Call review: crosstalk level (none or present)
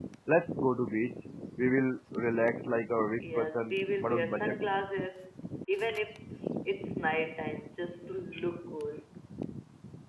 present